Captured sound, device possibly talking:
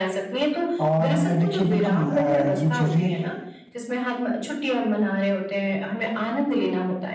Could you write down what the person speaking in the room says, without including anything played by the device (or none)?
और अ, देखिए बिल्कुल अ, ये चीज़ें